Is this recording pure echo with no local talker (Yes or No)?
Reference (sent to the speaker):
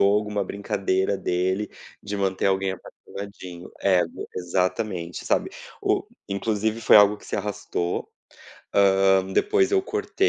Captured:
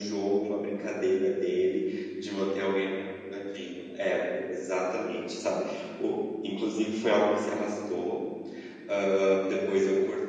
Yes